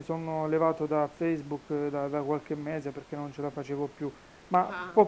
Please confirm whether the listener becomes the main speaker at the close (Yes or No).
No